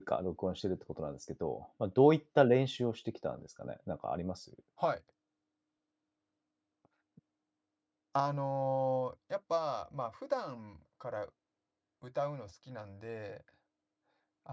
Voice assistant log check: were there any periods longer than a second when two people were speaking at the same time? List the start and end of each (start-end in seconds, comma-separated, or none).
none